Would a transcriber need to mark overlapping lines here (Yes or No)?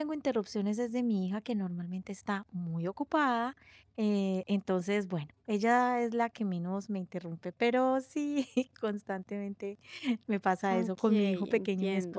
Yes